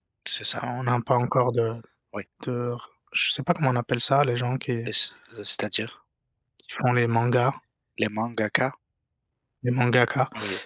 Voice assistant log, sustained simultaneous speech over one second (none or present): none